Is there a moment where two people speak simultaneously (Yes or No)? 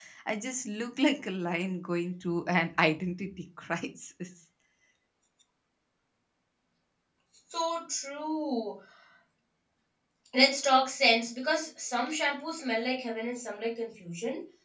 No